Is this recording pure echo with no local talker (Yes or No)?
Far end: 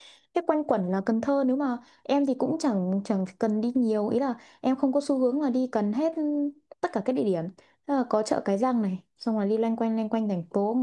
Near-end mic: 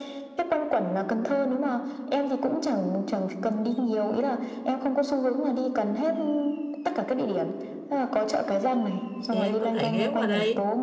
No